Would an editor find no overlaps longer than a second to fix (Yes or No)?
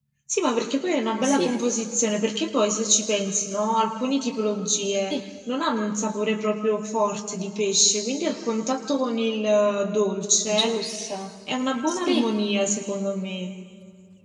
Yes